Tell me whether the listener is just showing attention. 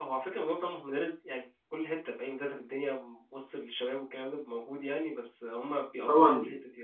No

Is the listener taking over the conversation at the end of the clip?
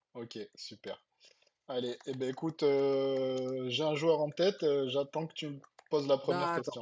Yes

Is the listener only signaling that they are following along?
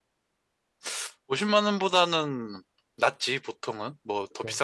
Yes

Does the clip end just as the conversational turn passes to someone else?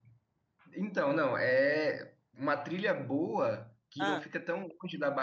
No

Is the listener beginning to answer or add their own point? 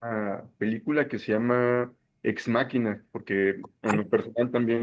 No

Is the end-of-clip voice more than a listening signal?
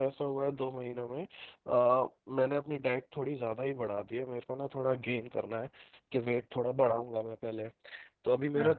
No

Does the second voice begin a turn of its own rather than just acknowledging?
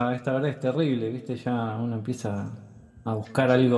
No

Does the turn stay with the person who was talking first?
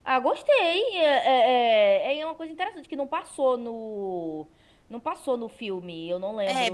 No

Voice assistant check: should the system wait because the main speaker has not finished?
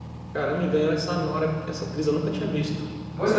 No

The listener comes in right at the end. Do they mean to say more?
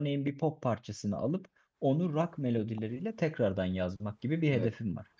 Yes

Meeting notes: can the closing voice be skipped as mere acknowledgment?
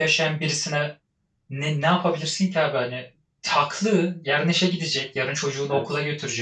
Yes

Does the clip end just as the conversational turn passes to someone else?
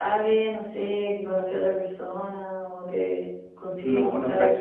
Yes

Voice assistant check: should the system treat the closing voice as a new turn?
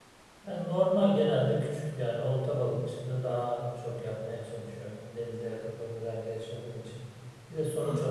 No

